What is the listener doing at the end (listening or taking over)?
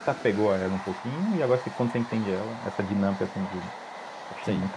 taking over